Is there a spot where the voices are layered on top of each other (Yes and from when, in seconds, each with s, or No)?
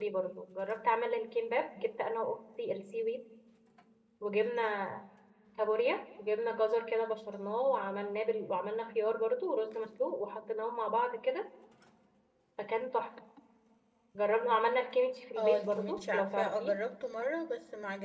Yes, from 15.4 s